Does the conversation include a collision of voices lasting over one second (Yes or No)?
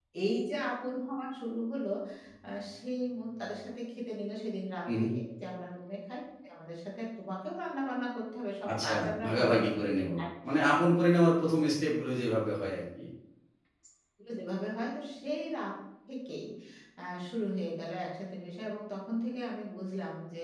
Yes